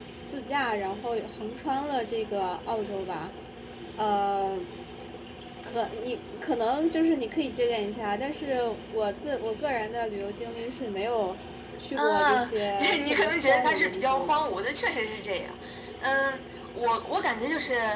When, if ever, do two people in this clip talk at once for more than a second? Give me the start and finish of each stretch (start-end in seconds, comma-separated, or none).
12.0-14.4